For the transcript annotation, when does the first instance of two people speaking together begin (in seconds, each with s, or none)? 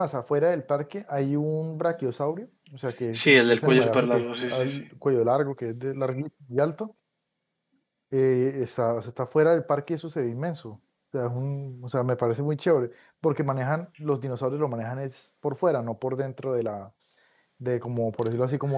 3.1 s